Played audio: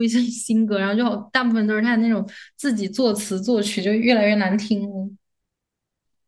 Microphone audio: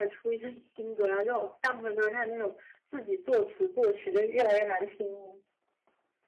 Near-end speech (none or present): none